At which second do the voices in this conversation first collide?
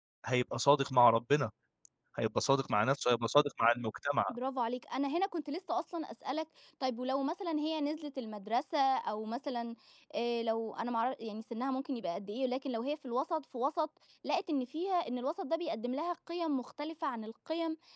none

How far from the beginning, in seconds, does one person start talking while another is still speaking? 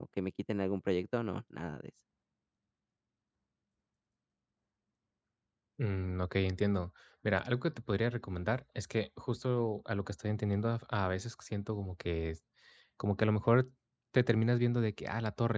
none

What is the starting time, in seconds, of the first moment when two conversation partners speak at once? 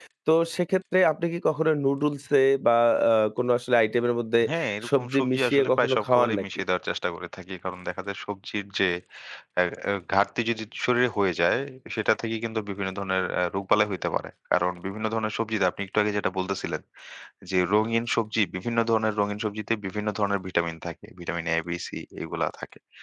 5.0 s

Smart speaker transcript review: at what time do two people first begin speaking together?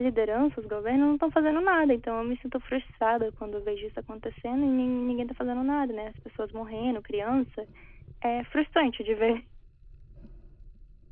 none

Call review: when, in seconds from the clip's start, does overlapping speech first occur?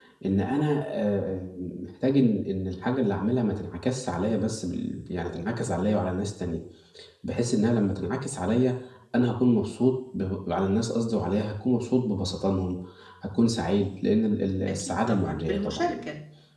14.7 s

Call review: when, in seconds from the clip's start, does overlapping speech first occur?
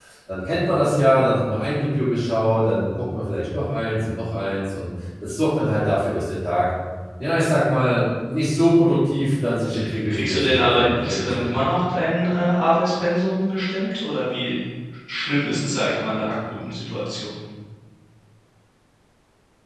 10.1 s

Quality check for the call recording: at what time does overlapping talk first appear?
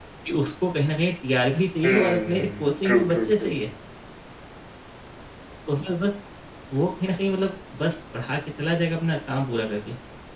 1.8 s

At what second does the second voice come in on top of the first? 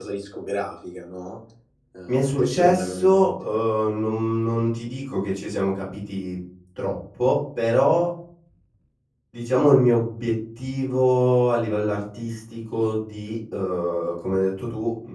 2.1 s

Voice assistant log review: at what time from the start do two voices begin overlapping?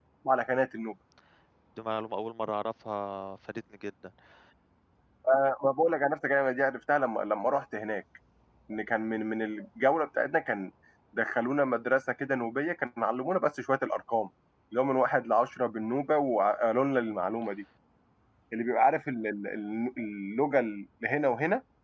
none

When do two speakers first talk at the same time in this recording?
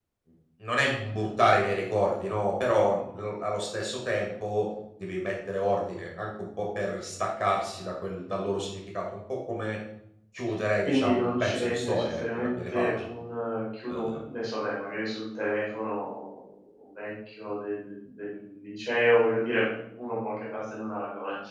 10.8 s

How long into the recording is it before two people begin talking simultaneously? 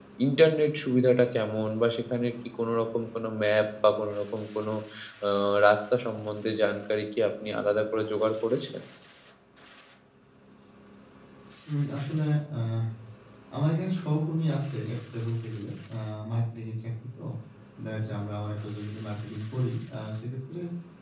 none

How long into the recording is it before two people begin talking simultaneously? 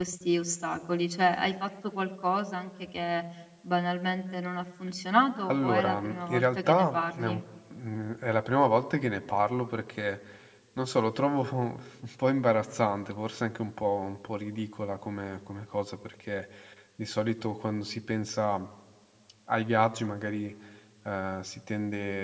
5.5 s

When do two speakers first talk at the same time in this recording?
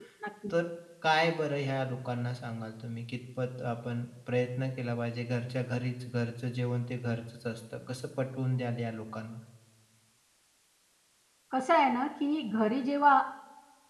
none

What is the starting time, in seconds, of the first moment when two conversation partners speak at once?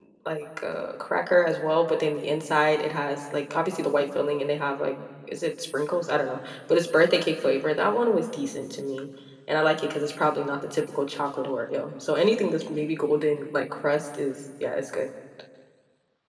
none

